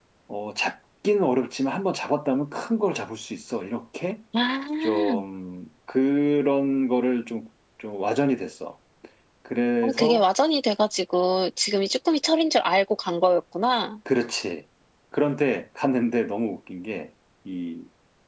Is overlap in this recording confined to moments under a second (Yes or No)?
Yes